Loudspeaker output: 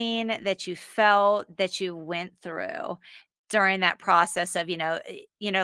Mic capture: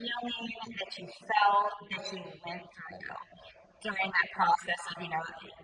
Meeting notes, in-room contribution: none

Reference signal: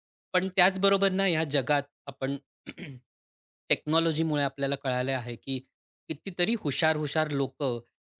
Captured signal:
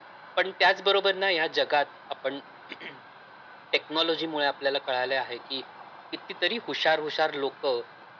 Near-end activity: none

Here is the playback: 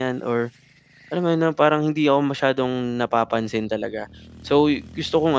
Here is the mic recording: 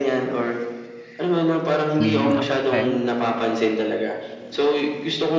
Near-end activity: present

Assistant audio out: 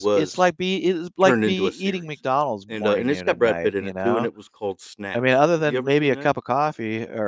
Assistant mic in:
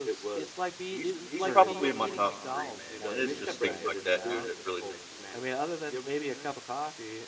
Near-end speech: present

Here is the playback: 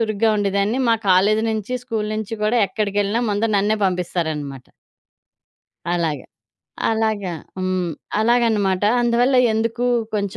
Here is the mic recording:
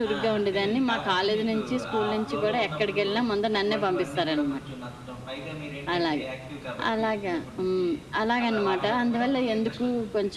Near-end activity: present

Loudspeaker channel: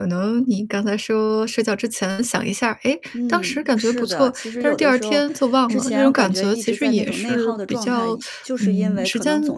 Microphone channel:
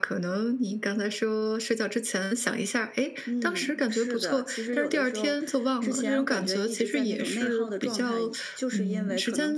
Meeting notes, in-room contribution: none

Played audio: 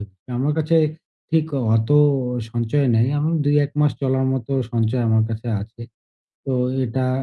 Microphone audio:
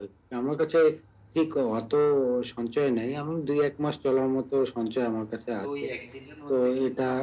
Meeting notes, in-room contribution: present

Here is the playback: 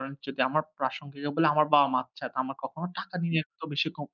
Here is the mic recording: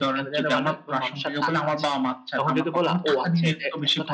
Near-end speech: present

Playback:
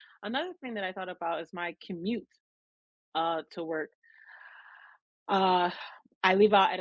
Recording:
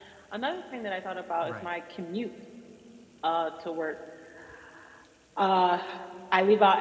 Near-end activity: present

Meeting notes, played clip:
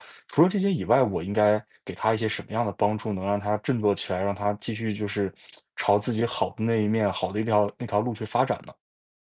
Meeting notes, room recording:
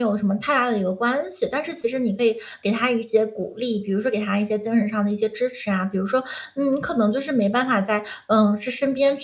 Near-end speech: present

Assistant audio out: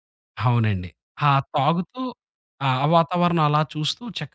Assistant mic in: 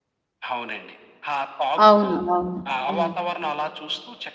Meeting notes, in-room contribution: present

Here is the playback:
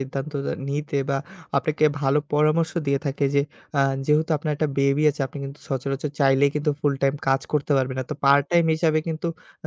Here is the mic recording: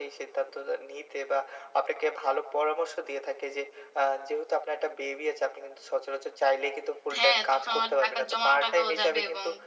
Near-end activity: present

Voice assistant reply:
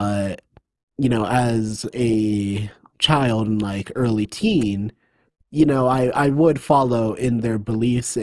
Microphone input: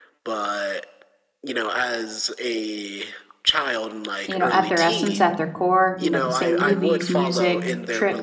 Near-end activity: present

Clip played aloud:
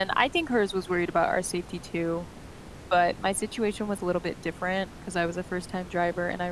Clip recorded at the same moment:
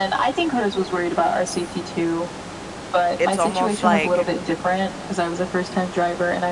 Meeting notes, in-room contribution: present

